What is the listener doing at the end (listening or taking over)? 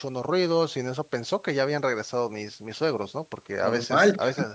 listening